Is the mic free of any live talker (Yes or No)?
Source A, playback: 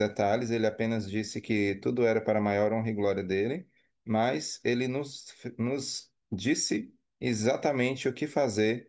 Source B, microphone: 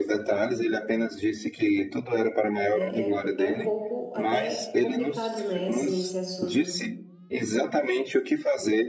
No